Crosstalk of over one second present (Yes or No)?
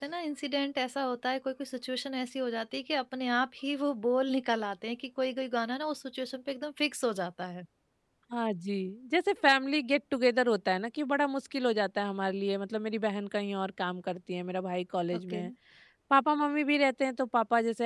No